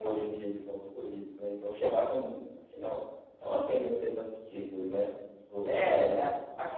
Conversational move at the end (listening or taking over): taking over